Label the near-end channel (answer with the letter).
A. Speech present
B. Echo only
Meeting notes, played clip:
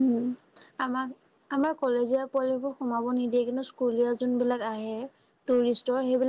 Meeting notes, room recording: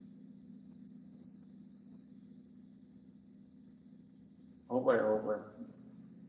A